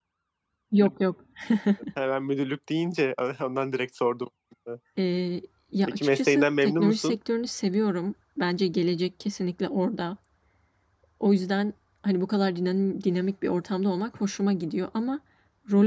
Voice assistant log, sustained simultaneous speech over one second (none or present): present